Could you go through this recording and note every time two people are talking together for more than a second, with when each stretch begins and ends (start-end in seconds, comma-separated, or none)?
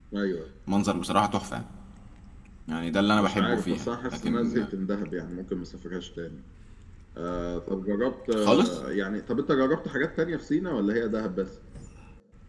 3.1-4.6